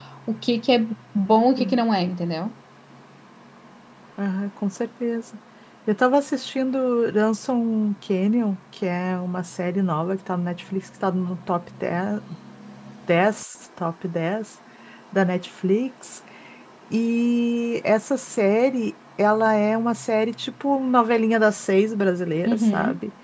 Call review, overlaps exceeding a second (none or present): none